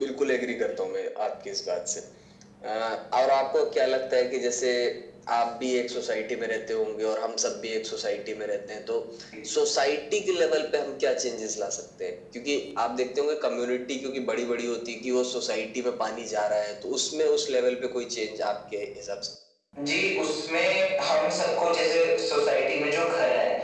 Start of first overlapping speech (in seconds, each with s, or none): none